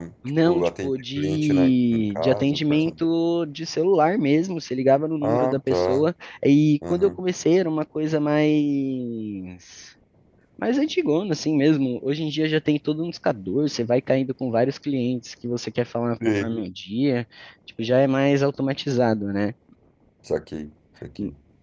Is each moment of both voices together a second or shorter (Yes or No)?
No